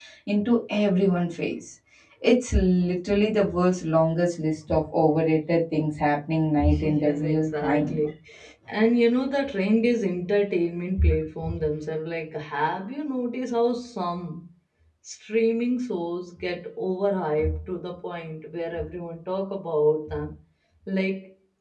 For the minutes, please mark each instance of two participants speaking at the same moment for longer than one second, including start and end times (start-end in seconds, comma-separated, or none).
6.8-8.0